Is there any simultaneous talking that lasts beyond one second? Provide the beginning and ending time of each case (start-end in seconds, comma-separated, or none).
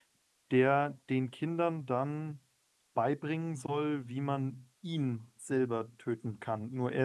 none